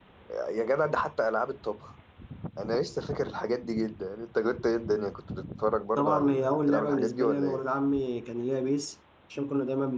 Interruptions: present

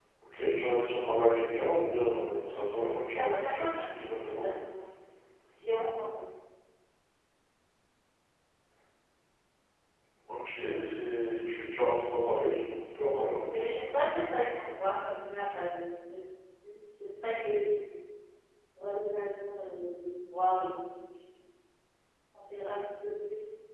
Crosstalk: present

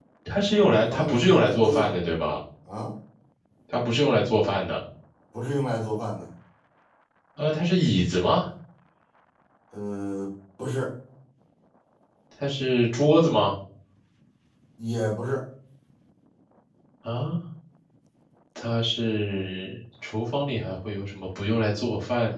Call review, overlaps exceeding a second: present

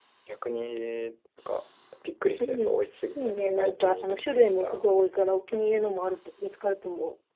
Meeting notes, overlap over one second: present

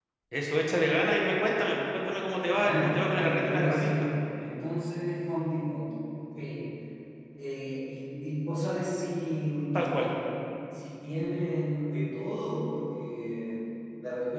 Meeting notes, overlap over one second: present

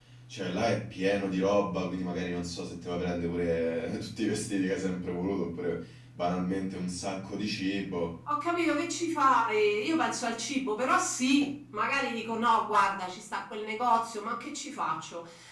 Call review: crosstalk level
none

